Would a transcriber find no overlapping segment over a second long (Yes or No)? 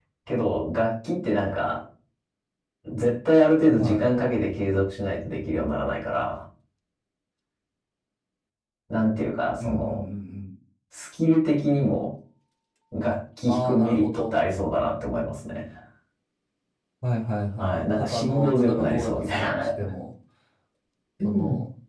No